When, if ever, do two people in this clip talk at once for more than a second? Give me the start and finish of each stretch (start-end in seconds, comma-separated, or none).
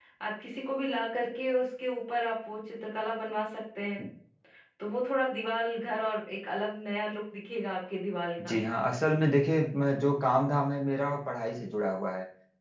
none